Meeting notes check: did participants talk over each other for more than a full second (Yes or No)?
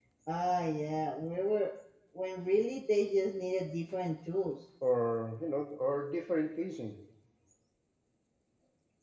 No